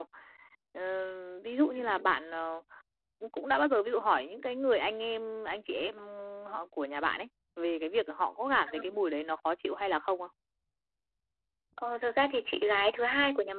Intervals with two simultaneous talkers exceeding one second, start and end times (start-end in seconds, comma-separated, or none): none